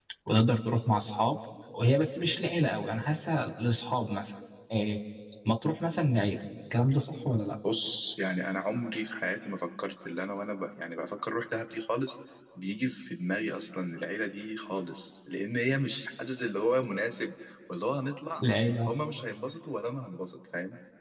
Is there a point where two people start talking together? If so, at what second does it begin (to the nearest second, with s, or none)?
none